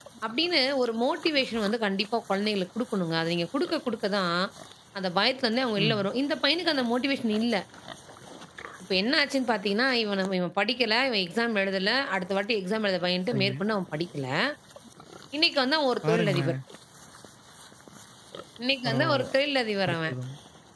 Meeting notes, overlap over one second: none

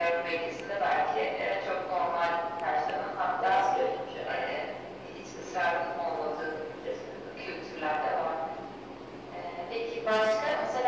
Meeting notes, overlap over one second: none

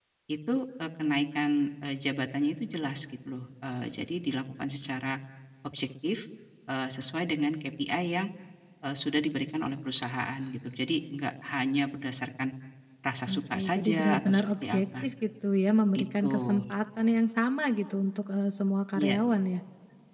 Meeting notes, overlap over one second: present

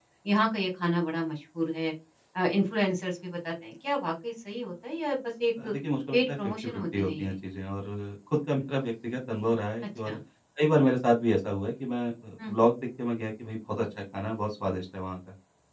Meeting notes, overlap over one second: present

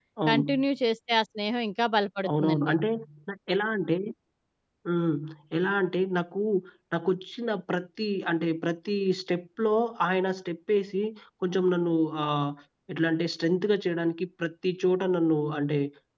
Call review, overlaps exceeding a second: none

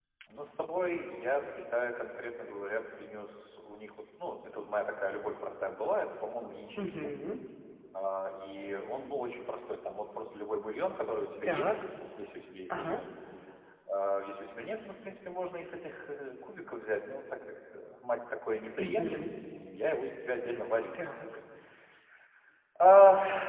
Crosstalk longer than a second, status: none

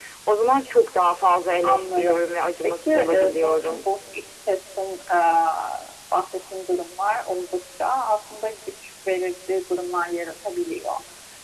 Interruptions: present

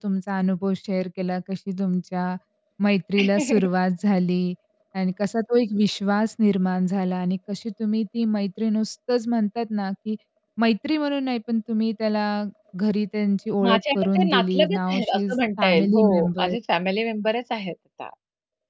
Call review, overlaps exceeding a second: present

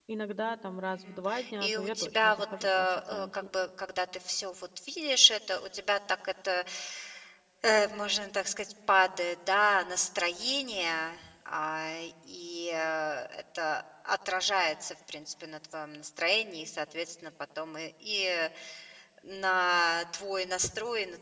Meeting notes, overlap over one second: present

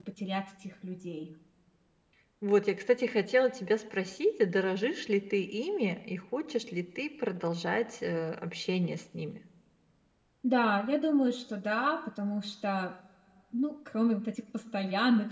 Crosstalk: none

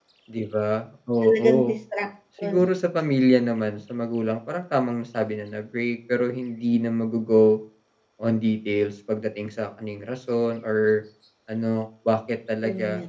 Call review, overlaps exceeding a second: none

